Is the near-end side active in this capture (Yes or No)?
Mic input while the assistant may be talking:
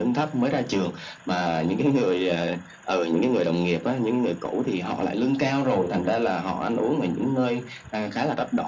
No